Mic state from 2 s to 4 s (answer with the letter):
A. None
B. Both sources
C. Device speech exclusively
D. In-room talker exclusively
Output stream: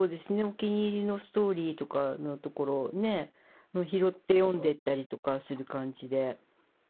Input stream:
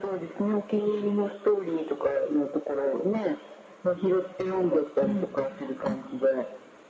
C